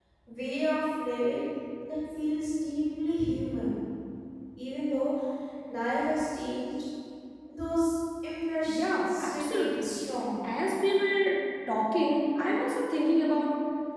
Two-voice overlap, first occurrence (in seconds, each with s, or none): 8.7 s